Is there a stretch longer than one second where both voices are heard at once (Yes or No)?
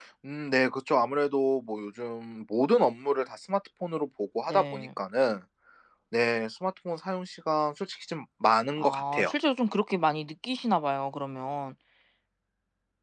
No